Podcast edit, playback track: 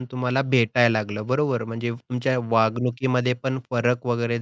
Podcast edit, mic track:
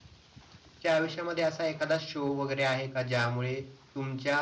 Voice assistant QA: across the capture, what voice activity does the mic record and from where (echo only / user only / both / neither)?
user only